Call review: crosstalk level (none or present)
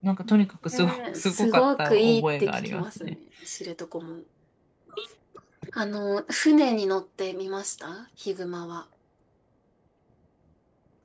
present